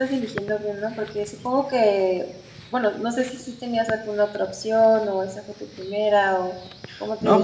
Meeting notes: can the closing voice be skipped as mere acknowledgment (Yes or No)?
No